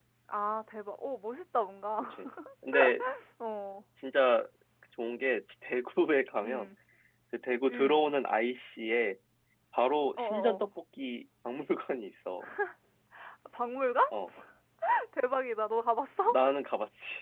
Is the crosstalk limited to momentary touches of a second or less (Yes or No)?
Yes